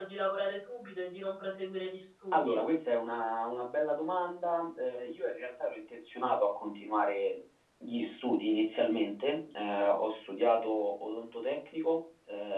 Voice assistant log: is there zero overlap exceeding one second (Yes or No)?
Yes